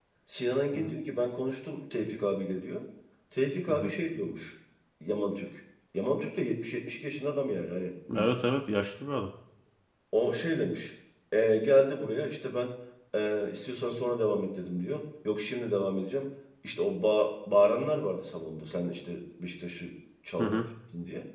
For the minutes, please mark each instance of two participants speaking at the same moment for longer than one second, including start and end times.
none

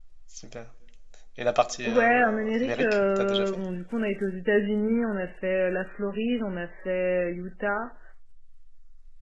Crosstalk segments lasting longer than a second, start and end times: 1.9-3.6

